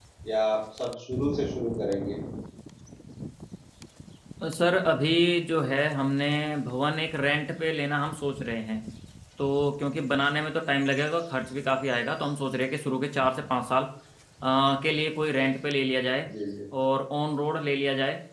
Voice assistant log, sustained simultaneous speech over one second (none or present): none